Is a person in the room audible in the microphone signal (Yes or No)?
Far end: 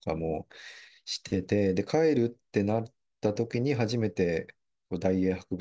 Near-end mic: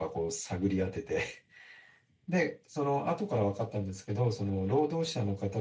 Yes